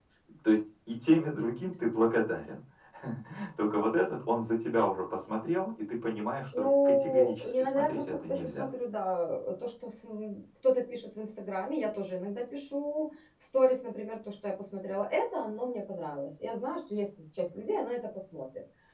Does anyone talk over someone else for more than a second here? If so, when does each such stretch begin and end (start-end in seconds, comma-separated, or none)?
6.6-8.6